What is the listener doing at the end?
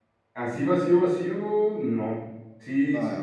listening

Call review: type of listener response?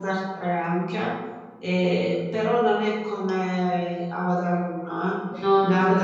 listening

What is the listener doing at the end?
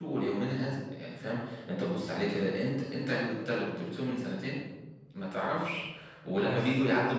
listening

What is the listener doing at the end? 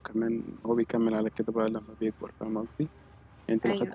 listening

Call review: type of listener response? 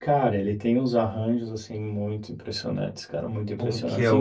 taking over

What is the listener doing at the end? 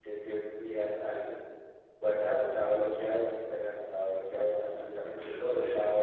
taking over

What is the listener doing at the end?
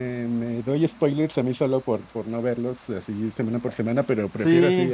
taking over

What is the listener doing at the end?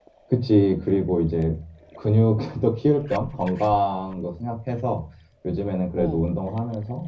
listening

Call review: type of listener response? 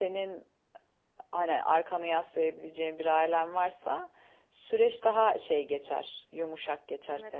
taking over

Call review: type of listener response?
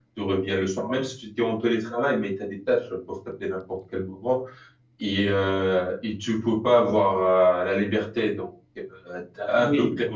listening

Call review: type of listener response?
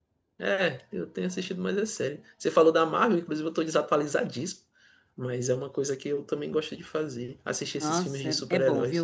taking over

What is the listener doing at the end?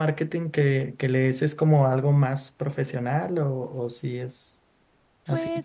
taking over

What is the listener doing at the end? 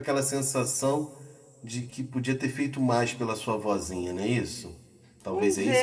taking over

